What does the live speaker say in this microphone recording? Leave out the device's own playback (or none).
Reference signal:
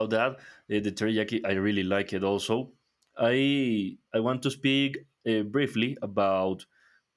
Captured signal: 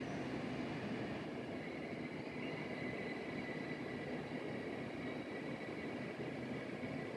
none